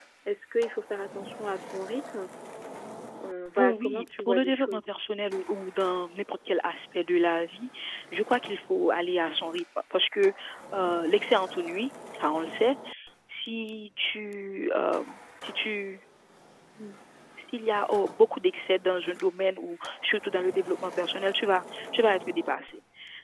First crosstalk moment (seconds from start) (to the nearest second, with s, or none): 4 s